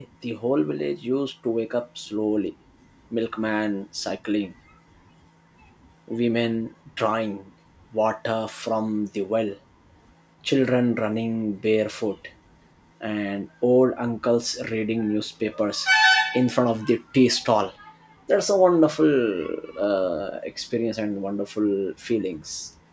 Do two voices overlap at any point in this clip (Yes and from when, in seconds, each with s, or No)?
No